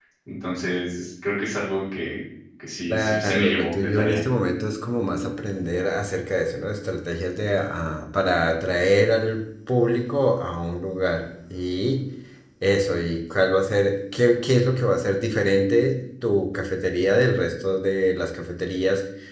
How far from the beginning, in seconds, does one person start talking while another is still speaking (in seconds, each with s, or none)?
2.9 s